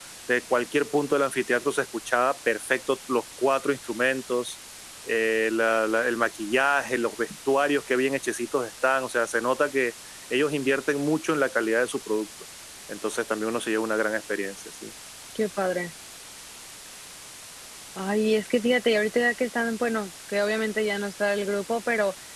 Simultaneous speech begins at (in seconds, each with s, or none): none